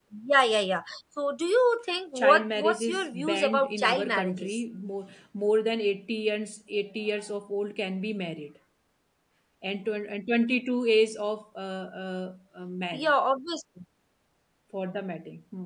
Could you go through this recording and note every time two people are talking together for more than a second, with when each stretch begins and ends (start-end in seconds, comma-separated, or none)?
2.2-4.6